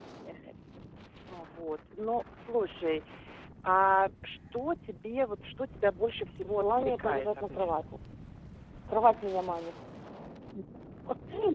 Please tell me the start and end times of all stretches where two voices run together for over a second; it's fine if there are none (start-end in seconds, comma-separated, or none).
6.4-7.7